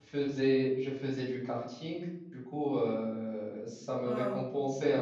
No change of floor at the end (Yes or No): Yes